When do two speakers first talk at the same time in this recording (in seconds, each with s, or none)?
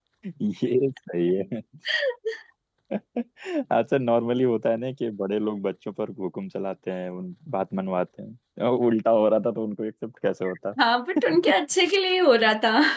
none